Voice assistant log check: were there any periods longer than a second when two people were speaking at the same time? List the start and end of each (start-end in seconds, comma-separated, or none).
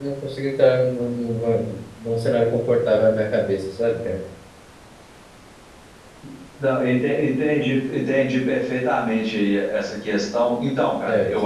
none